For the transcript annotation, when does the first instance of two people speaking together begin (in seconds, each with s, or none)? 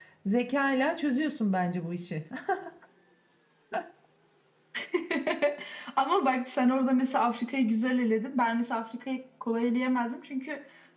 none